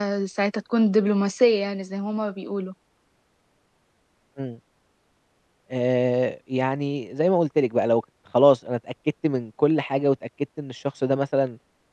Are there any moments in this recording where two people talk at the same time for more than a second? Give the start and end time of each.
none

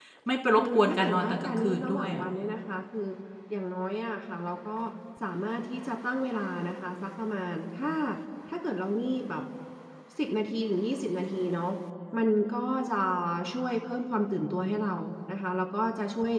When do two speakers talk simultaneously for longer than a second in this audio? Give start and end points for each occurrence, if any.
0.6-2.2

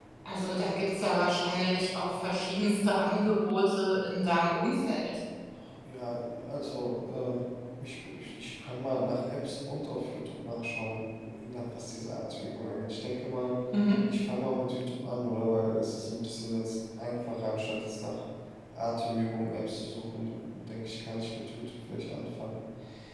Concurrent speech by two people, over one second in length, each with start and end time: none

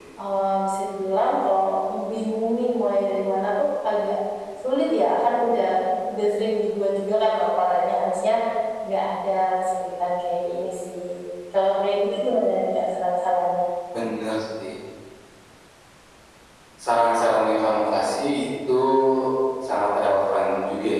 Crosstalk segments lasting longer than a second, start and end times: none

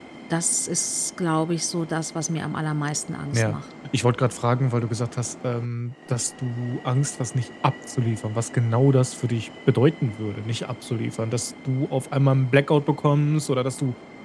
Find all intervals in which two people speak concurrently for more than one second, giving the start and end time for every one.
none

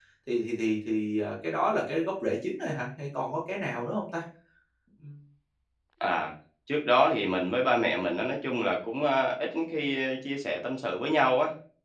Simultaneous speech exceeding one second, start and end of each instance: none

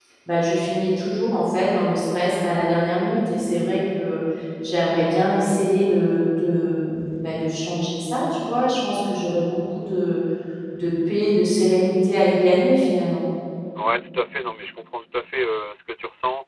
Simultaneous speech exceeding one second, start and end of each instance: none

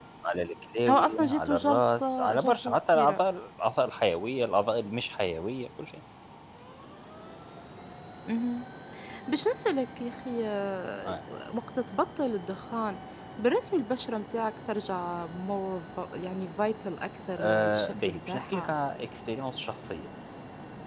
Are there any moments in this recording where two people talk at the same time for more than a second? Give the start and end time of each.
0.9-3.2, 17.4-18.8

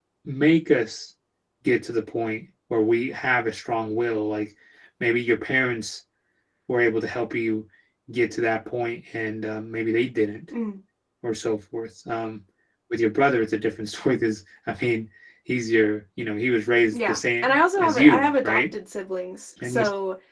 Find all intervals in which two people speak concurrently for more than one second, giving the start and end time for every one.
16.9-18.6

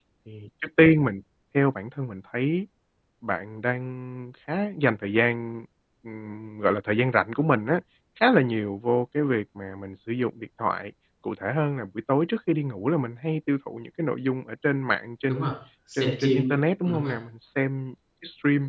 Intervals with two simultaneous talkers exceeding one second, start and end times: 15.9-17.2

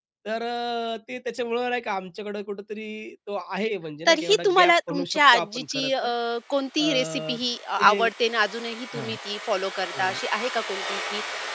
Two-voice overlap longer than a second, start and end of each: 4.1-5.9

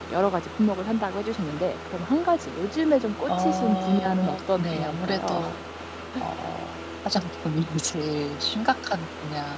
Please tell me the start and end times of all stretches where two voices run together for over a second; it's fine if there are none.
3.3-5.4

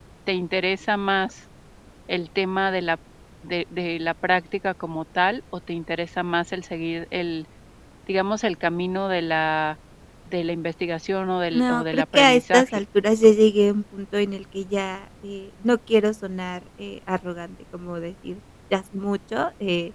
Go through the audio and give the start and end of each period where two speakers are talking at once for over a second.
11.5-12.8

